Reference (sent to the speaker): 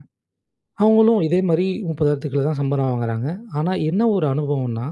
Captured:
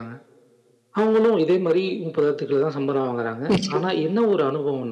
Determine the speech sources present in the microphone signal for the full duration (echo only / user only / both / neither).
both